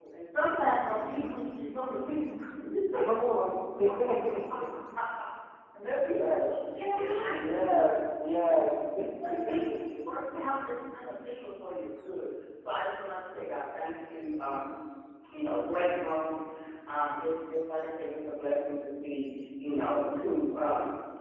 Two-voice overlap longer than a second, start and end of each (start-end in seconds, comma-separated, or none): 6.9-8.5